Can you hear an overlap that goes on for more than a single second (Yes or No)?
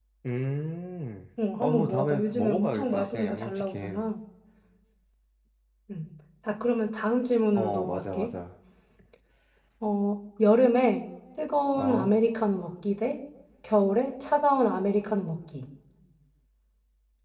Yes